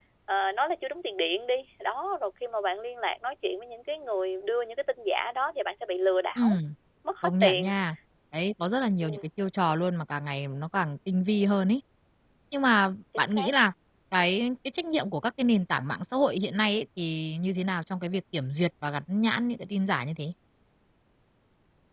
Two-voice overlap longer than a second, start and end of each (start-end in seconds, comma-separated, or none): none